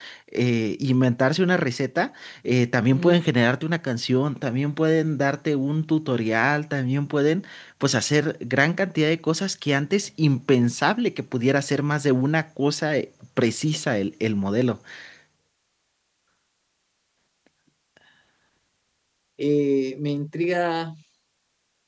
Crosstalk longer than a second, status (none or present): none